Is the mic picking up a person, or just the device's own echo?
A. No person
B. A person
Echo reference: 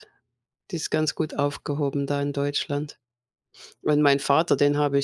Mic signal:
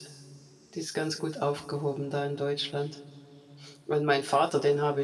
A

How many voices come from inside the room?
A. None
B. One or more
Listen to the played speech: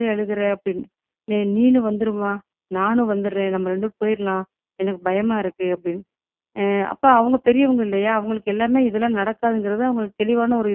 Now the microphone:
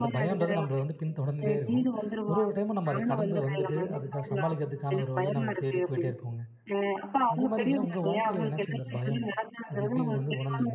B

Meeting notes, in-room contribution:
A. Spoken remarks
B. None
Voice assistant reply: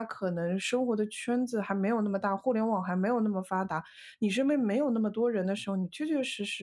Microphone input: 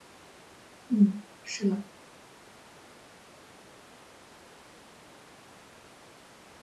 A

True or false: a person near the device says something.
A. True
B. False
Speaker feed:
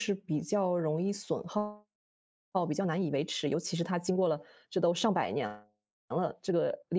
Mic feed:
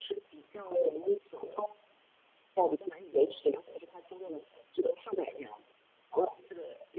B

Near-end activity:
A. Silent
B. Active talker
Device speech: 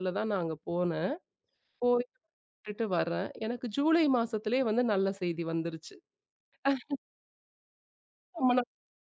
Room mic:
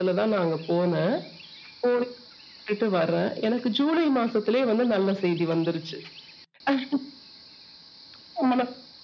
A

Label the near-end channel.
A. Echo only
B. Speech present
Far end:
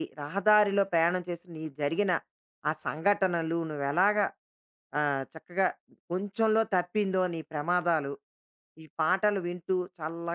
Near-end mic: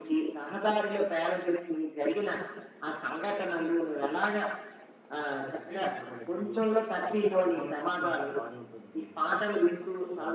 B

